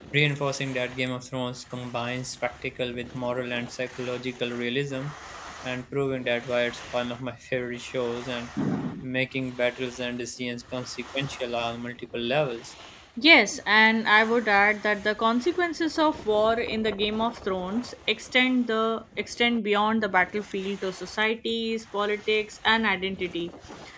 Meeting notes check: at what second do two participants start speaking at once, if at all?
none

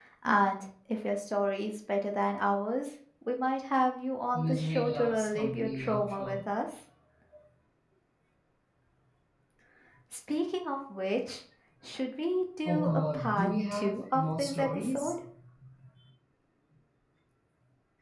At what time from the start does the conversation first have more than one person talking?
4 s

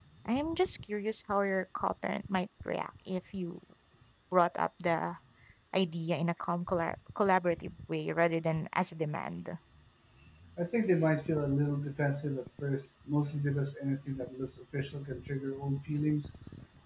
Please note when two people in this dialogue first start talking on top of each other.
none

